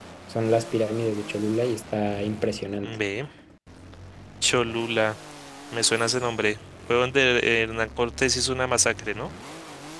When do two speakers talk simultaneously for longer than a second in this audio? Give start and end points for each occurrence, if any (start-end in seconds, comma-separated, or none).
none